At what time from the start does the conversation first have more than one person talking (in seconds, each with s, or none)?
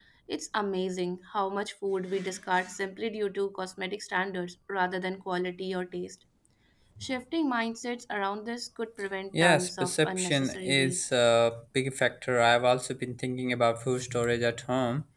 9.3 s